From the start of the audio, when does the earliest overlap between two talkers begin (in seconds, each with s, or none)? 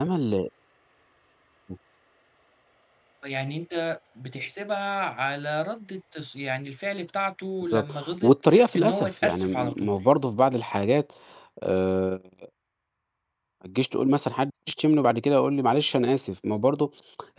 7.6 s